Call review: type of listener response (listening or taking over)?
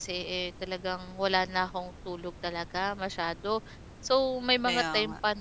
listening